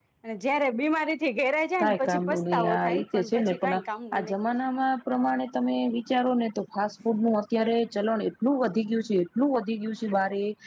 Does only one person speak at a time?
No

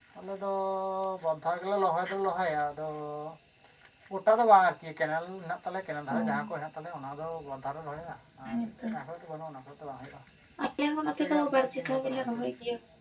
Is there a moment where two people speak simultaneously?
Yes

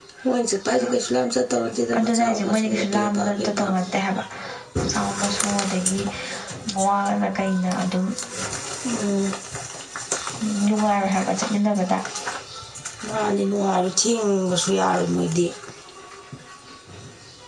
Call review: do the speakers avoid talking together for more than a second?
No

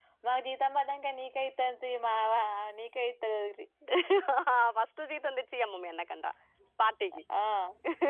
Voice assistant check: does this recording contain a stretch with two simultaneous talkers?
No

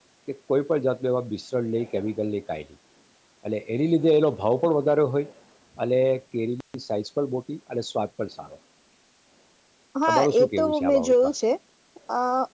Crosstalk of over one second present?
Yes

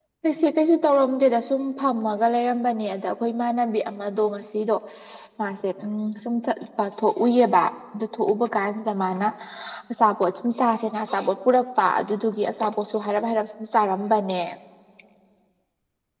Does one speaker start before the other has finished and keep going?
No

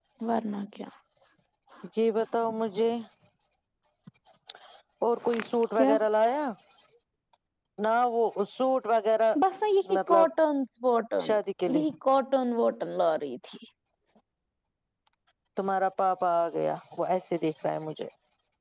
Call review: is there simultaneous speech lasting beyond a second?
No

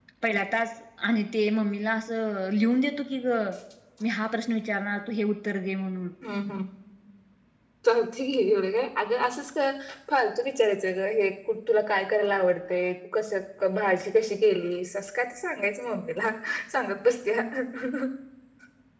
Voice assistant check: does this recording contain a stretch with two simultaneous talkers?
No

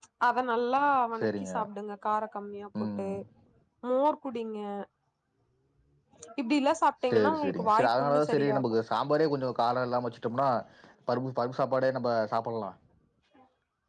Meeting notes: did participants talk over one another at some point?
Yes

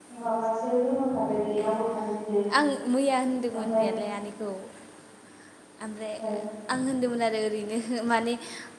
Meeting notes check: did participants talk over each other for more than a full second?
No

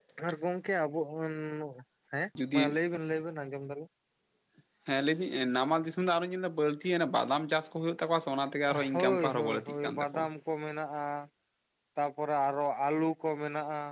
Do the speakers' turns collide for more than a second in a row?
Yes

